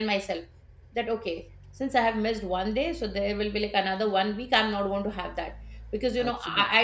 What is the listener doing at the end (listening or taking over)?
listening